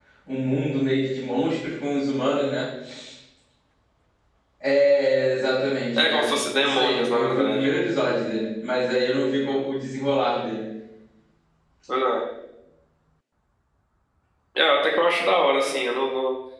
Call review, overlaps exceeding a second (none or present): present